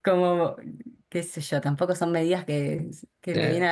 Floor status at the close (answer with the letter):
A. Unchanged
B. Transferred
A